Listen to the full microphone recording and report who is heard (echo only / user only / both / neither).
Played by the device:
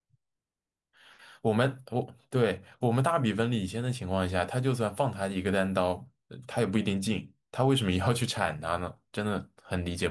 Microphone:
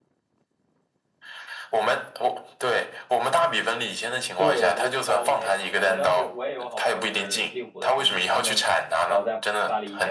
both